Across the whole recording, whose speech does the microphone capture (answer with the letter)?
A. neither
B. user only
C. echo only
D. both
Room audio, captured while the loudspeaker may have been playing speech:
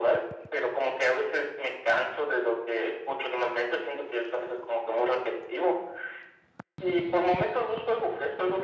C